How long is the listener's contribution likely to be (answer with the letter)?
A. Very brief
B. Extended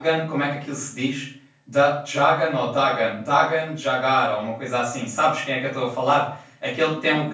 A